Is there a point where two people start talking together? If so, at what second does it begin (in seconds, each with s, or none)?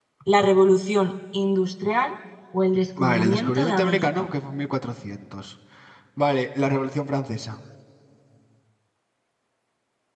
3.0 s